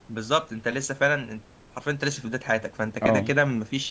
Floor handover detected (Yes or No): No